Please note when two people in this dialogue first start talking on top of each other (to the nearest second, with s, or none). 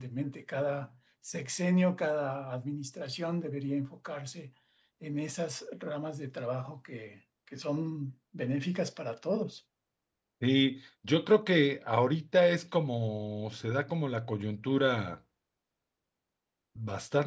none